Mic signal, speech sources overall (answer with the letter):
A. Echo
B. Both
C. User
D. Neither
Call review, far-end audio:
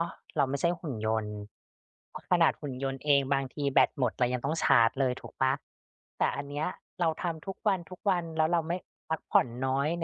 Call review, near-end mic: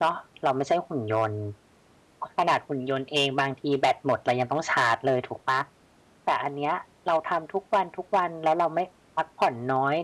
A